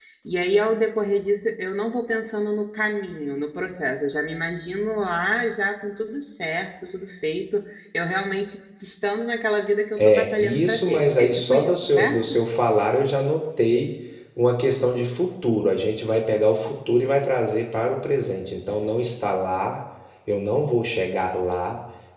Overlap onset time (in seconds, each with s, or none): 10.0 s